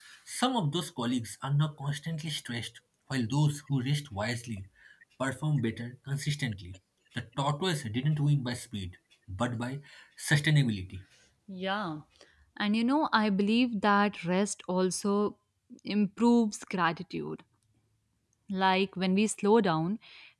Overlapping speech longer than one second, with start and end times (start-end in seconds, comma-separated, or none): none